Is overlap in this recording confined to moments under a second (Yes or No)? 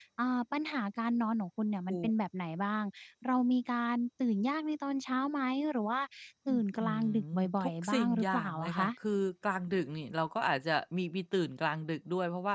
No